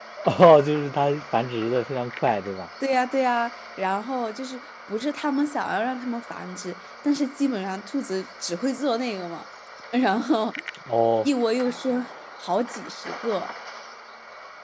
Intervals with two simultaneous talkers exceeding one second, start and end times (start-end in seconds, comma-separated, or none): none